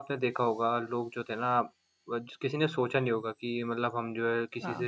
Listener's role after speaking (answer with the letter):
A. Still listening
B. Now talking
A